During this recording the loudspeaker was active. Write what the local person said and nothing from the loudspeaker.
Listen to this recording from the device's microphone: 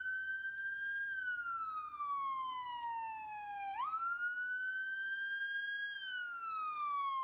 none

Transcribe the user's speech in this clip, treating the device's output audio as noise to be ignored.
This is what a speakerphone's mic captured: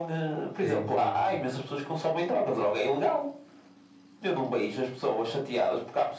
Sim, sim, sim.

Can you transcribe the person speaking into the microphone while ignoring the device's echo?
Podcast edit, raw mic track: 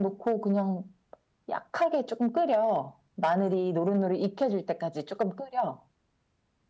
none

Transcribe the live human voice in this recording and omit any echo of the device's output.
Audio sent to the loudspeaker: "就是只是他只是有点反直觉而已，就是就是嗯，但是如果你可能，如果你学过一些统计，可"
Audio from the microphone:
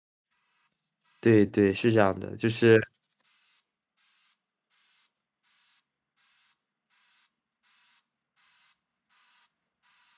对对，是这样的，就是

